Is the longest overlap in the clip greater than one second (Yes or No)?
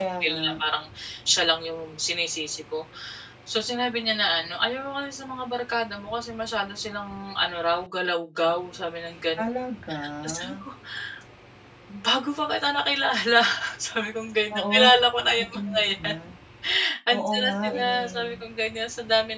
Yes